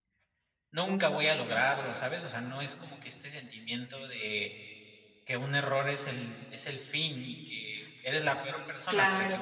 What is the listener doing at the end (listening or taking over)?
taking over